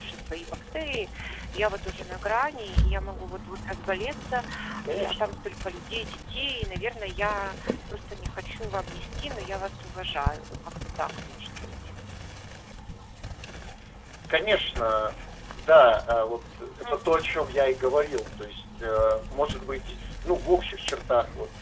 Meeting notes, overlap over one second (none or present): none